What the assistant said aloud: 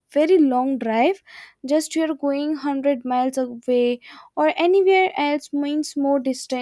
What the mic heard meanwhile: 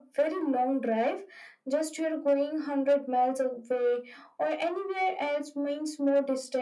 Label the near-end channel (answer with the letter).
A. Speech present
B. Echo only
B